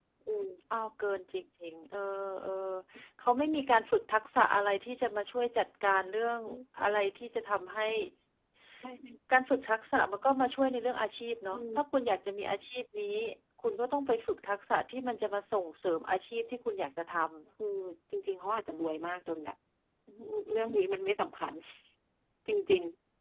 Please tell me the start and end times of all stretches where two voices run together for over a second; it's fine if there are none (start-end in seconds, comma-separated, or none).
none